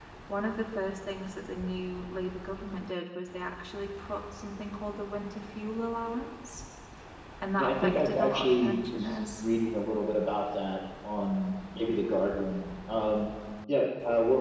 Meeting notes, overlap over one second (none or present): present